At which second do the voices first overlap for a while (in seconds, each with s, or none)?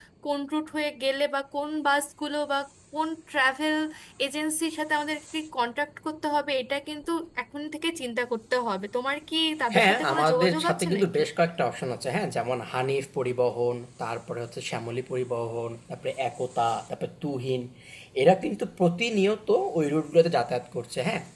9.7 s